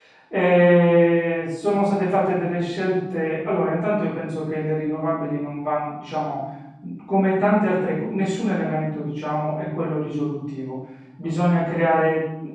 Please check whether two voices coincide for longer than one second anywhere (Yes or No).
No